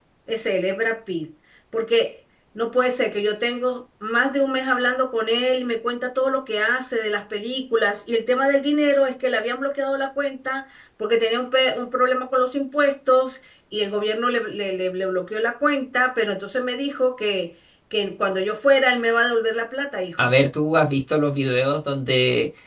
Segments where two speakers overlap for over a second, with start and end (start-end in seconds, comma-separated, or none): none